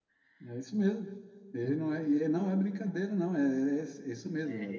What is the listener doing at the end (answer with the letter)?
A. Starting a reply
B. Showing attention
A